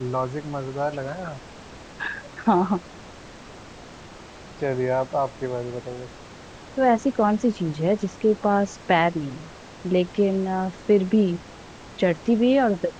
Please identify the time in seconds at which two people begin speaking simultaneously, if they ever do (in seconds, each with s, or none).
none